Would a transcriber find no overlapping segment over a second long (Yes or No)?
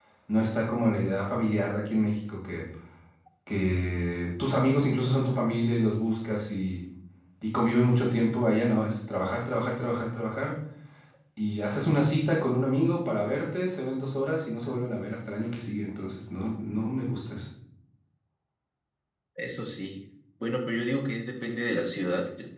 Yes